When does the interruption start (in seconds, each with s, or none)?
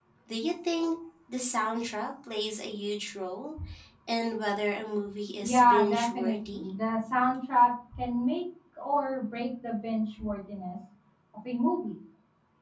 5.4 s